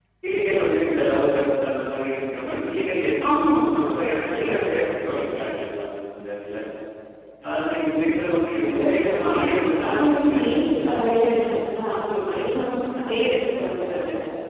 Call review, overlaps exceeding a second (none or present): present